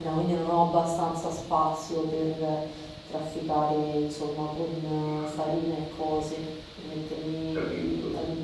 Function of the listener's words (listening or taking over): listening